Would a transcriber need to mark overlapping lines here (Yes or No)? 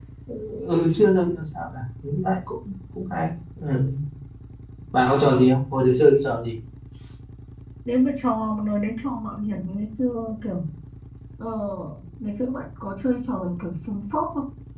No